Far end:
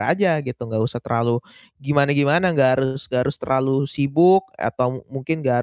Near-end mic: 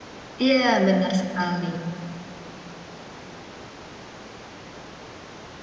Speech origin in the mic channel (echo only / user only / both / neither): user only